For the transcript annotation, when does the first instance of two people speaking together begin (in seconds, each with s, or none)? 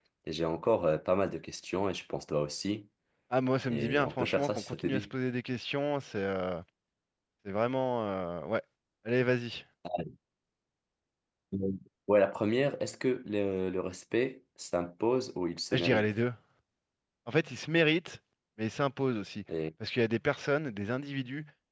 3.7 s